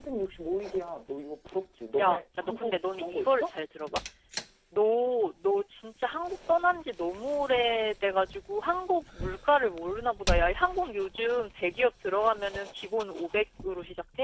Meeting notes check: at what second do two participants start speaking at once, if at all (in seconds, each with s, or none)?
2.0 s